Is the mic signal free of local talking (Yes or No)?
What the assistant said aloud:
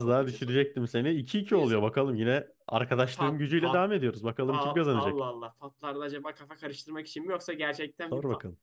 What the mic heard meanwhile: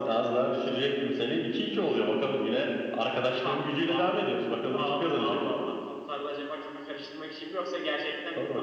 Yes